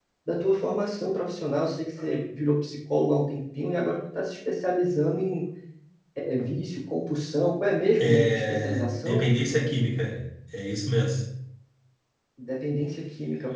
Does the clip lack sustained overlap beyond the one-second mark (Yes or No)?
No